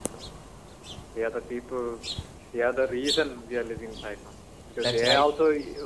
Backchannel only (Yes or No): Yes